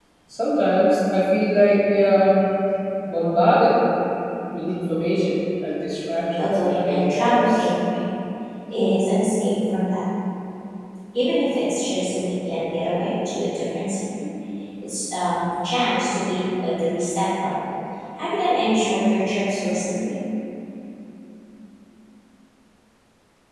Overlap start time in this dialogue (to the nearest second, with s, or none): 6 s